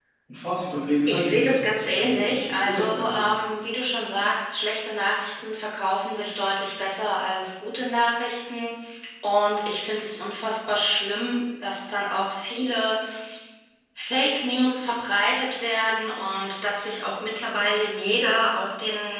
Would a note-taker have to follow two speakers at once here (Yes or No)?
Yes